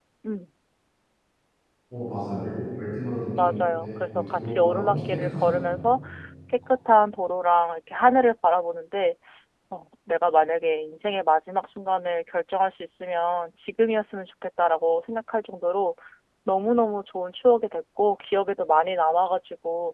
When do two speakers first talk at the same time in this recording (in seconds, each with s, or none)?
3.4 s